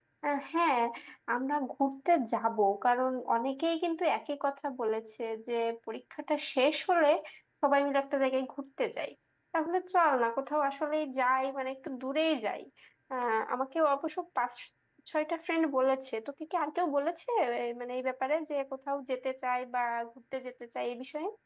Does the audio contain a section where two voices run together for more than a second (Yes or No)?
No